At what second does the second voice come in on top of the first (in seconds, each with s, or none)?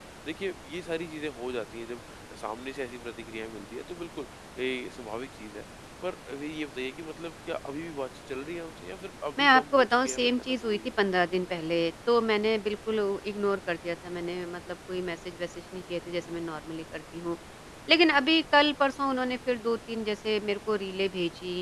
9.4 s